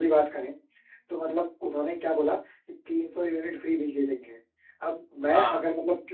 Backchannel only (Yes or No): Yes